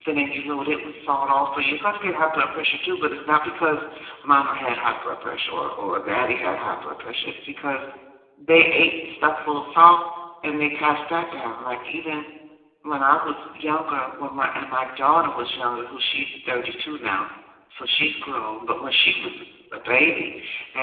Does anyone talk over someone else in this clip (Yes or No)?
No